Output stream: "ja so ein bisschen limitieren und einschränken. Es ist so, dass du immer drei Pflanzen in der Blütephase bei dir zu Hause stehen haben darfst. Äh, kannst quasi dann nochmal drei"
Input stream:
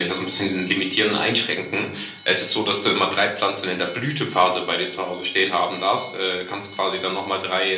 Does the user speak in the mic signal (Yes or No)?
No